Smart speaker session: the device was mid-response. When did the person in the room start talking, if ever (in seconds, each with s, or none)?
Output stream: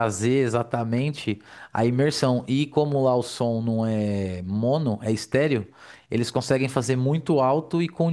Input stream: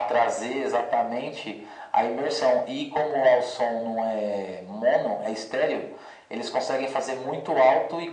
none